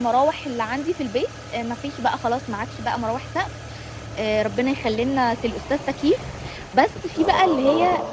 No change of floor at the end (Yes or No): Yes